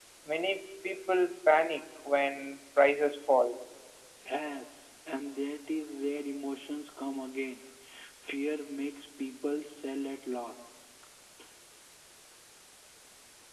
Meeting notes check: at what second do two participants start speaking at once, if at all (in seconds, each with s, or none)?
none